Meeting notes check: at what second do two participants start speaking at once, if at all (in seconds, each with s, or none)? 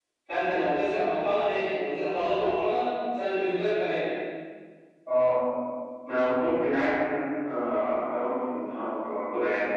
none